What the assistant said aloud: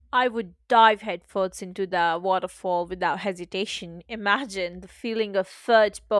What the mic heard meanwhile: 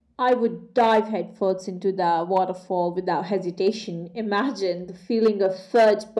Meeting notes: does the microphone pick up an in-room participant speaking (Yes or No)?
No